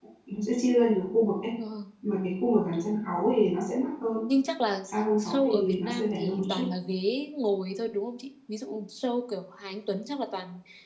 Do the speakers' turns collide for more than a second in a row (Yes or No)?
Yes